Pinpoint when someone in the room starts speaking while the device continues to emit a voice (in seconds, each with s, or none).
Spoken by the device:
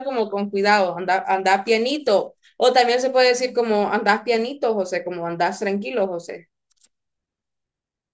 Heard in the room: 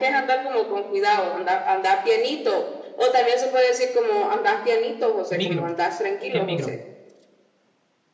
5.3 s